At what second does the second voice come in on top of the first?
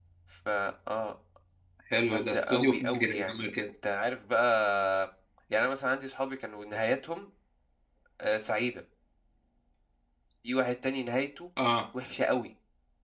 2.1 s

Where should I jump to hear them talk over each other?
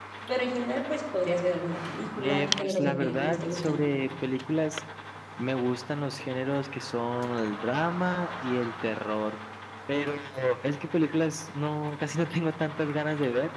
2.2 s

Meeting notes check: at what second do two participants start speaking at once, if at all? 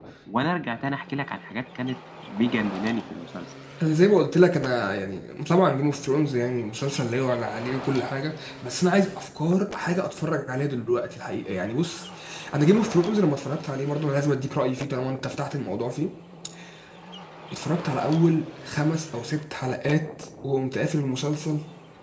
none

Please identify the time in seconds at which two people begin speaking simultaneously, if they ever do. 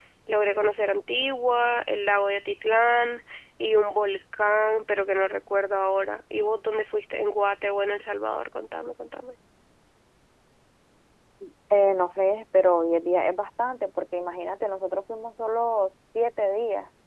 none

